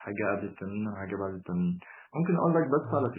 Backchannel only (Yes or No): Yes